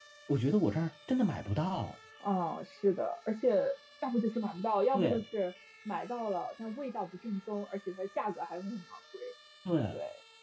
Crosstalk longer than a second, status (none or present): none